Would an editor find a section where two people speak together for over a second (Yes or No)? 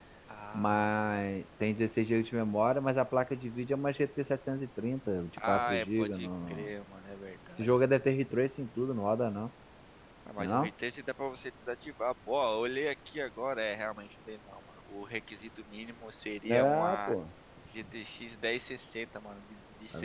Yes